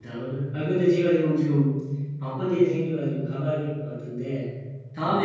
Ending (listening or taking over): listening